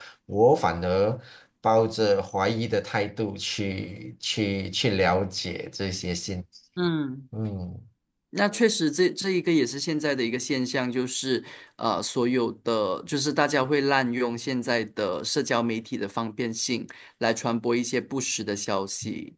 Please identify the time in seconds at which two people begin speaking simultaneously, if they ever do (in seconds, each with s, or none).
none